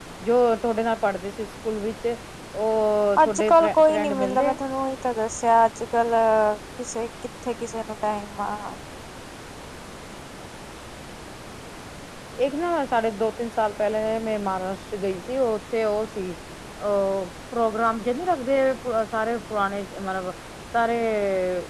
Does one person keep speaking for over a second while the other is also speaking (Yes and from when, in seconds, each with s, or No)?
Yes, from 3.2 s